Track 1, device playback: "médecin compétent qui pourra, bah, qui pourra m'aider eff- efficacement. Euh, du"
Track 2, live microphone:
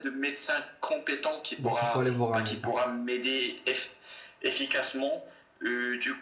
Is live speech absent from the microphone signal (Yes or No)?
No